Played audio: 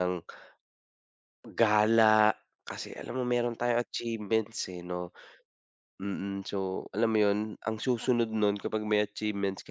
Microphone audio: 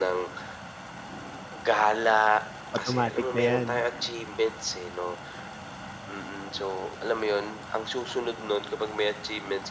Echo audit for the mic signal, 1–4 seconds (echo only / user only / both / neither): both